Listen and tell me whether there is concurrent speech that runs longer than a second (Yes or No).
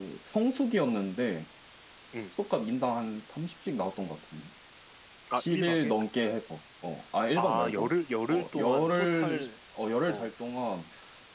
Yes